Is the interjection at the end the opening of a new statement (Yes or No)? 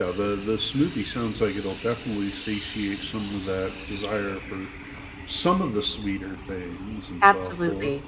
Yes